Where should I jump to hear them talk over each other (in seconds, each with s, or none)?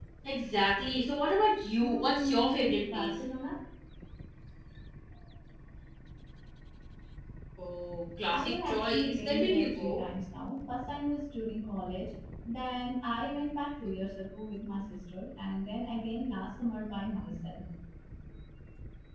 1.8 s